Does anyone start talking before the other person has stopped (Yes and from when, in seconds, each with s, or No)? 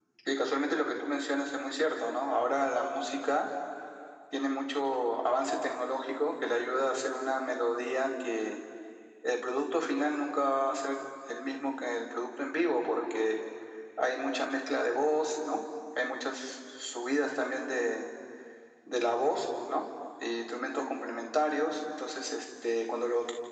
No